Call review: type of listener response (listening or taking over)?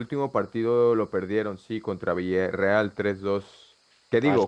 listening